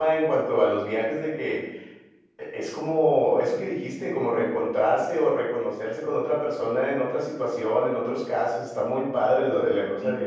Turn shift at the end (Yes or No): Yes